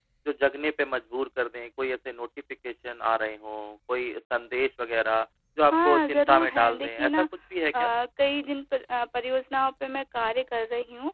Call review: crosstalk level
present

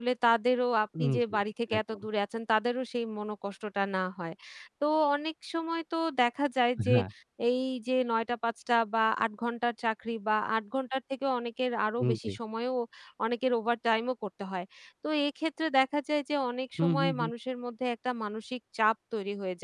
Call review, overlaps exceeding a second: none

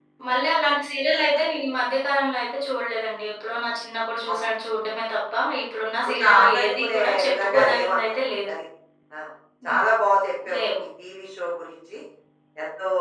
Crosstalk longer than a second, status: present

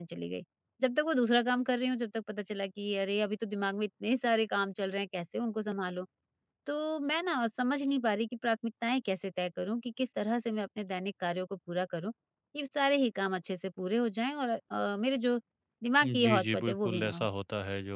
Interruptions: present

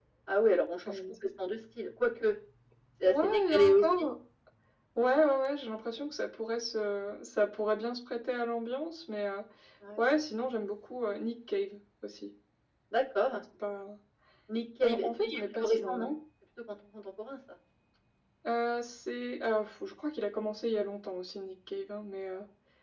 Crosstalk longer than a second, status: present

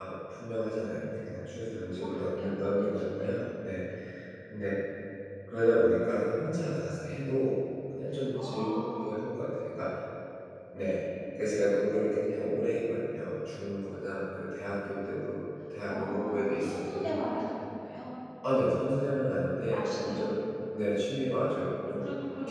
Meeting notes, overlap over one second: present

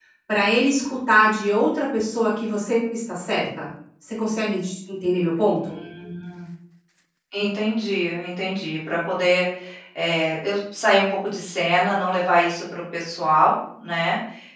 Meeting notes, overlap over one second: none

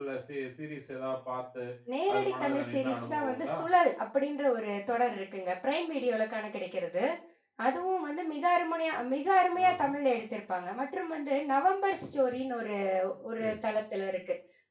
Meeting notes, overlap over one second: present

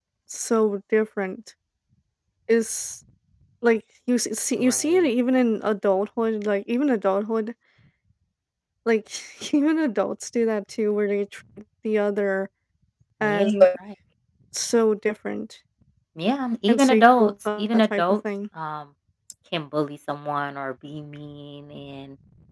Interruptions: present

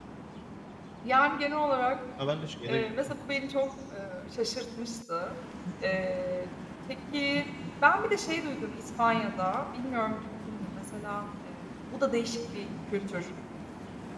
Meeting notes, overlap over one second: none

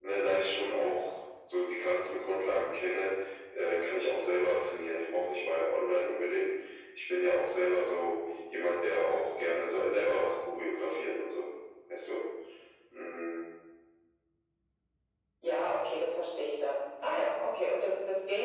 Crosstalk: none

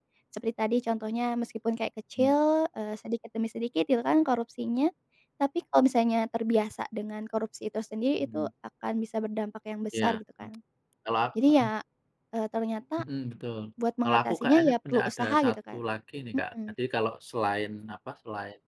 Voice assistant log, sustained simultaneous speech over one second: present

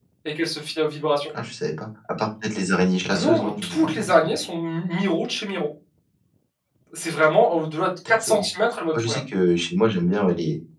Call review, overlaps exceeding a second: present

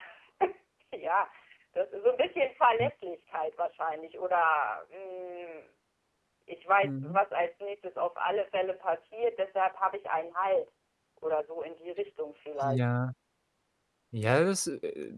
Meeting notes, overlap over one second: none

